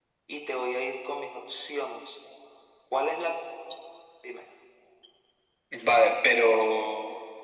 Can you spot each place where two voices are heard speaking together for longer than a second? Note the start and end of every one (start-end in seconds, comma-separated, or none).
none